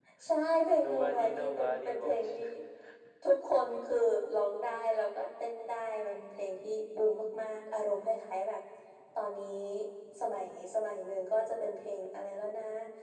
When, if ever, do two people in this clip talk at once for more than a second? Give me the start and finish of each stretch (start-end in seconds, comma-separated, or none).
0.8-2.4